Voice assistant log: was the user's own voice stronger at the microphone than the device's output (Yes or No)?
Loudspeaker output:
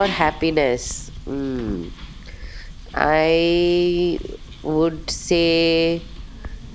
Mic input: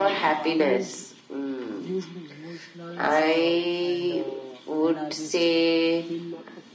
No